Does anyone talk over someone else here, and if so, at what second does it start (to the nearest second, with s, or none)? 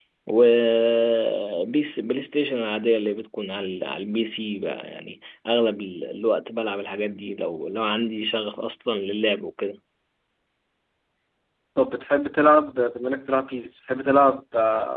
none